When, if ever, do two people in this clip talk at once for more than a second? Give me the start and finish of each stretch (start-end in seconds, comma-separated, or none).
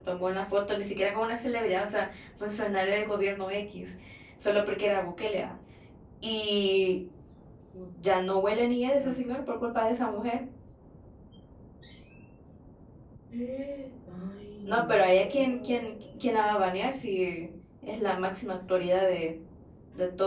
14.7-15.9